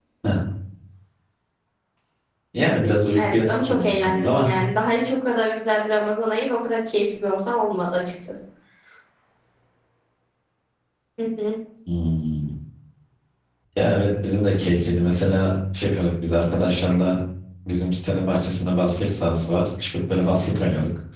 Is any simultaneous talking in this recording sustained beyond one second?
Yes, from 3.1 s

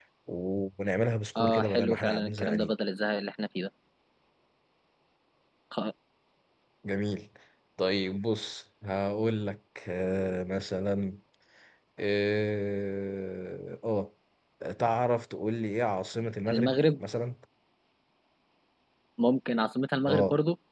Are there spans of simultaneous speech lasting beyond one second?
Yes, from 1.4 s

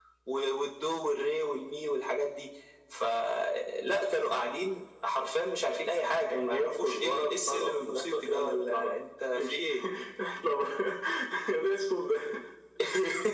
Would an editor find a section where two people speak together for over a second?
Yes, from 5.6 s

